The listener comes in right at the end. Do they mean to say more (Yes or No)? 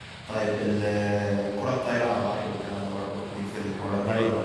Yes